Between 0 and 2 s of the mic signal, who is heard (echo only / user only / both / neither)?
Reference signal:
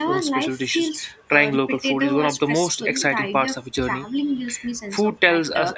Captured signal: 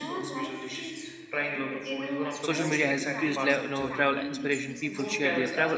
echo only